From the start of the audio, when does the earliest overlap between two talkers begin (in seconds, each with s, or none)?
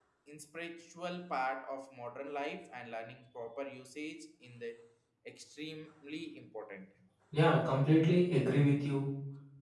none